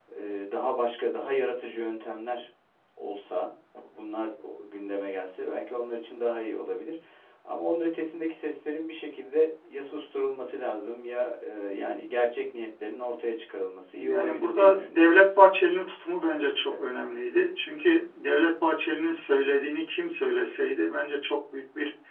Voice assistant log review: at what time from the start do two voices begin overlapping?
14.0 s

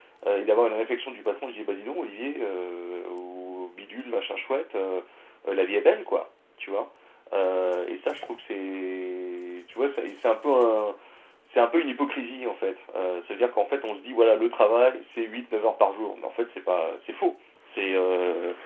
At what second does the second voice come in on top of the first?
none

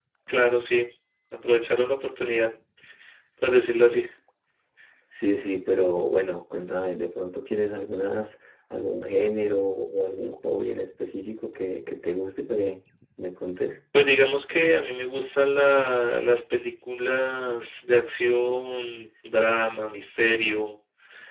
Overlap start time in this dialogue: none

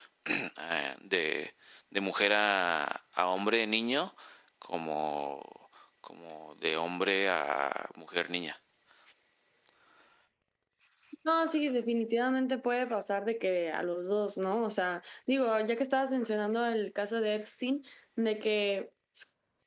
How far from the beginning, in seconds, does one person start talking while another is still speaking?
none

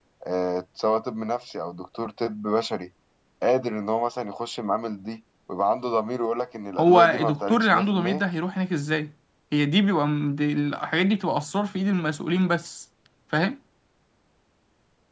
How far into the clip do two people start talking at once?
6.8 s

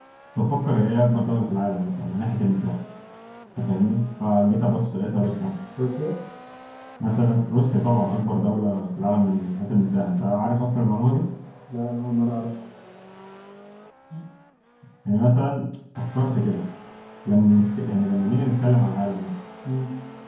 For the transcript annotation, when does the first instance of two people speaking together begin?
none

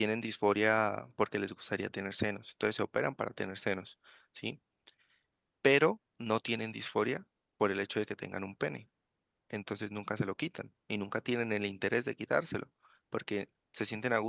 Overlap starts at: none

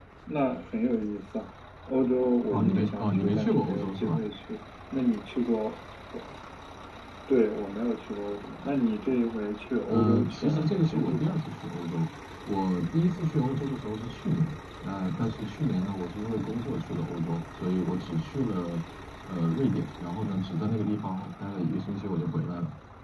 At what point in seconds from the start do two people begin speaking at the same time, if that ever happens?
2.5 s

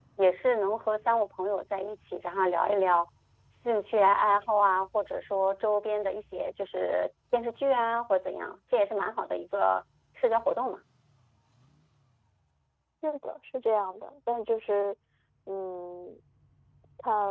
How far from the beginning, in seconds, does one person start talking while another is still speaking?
none

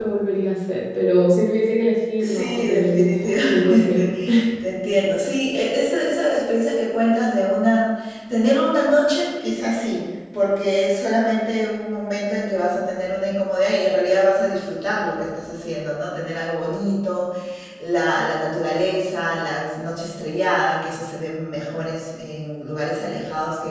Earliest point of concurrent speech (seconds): 2.1 s

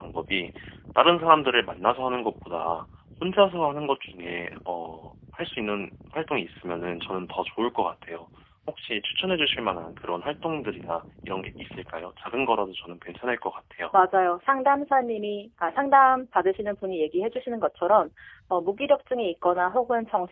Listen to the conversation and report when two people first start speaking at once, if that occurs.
none

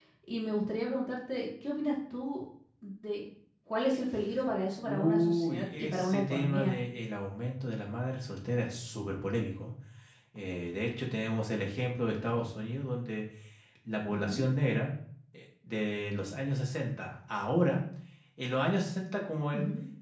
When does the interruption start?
4.8 s

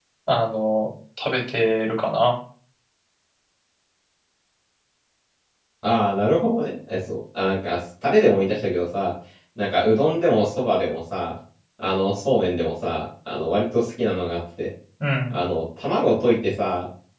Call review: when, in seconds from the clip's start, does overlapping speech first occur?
none

